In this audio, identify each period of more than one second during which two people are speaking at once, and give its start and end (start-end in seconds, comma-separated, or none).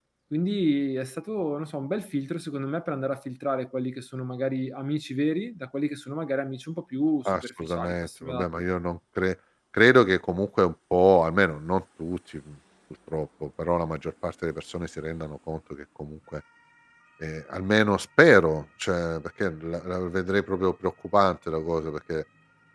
7.2-8.5